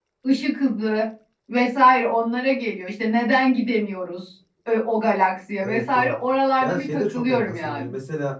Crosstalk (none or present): present